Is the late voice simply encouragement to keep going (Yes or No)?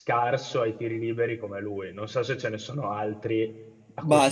No